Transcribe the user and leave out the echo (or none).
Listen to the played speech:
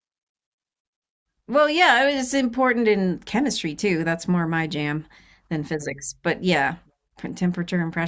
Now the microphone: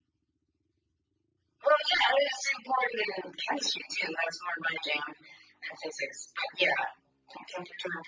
none